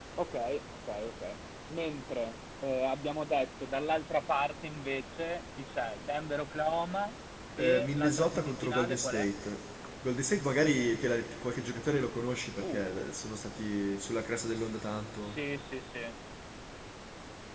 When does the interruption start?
7.6 s

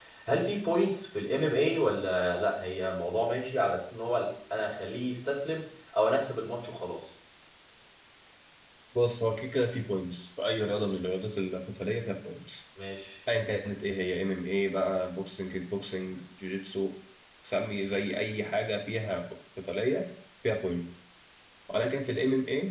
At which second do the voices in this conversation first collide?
none

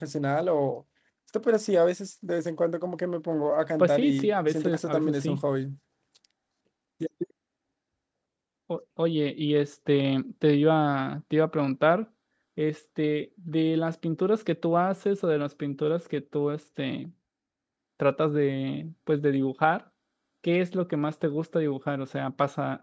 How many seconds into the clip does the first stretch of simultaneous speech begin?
3.8 s

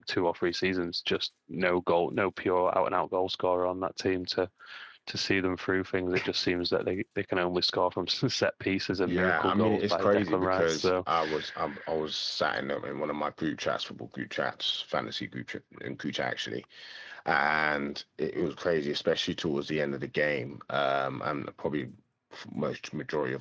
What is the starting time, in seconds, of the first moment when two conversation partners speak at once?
9.1 s

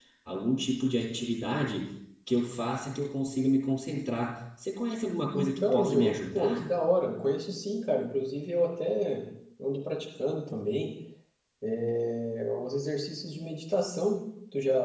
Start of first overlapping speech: 5.3 s

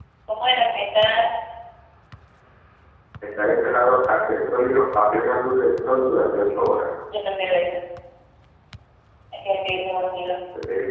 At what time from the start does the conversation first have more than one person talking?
none

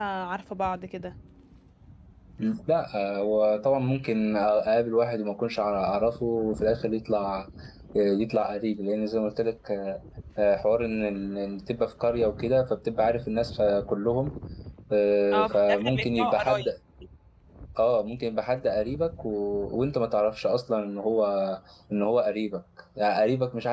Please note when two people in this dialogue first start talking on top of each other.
15.3 s

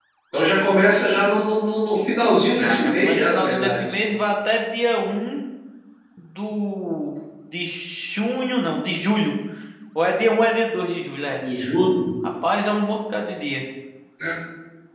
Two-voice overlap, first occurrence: 2.6 s

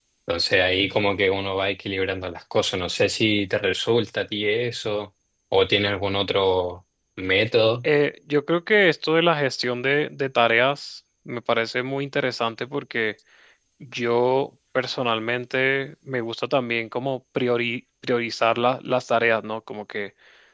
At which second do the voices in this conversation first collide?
none

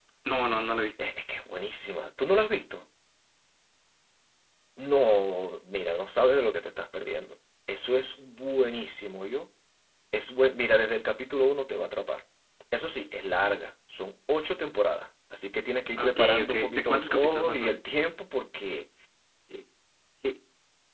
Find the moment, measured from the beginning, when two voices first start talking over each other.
16.0 s

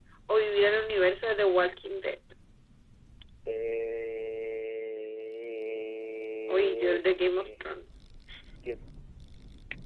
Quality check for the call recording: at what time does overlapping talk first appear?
6.5 s

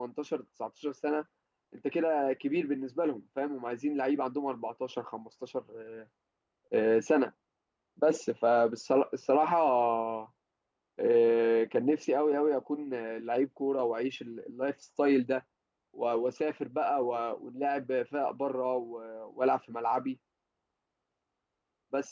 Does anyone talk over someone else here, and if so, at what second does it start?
none

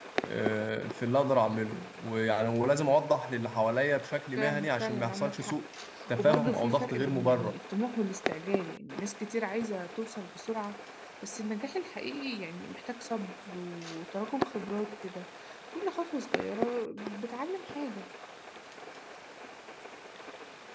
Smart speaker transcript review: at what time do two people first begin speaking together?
4.4 s

